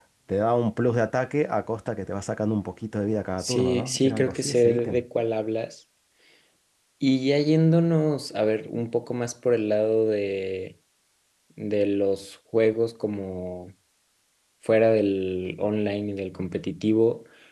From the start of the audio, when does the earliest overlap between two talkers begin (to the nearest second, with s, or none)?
3 s